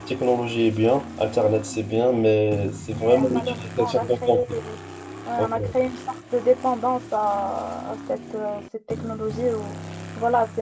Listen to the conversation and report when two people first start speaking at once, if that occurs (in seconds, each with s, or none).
3.0 s